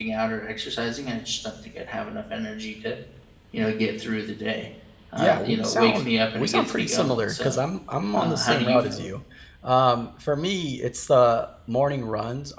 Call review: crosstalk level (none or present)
present